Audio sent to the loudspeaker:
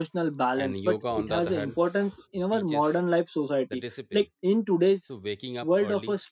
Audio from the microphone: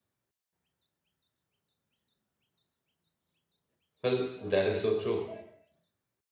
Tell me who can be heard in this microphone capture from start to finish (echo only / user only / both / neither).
user only